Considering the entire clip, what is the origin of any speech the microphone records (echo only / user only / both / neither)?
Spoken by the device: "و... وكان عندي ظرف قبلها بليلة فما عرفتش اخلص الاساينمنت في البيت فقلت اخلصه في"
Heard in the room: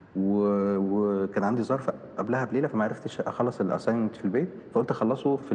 echo only